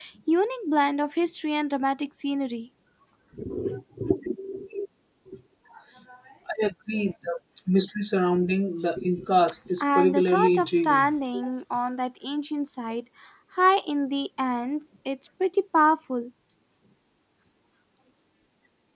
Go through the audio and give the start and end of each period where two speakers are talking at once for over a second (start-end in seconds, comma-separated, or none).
9.8-11.1